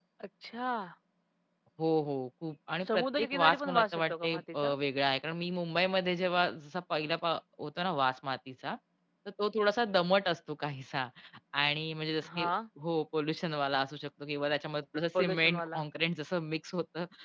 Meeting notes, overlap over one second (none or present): present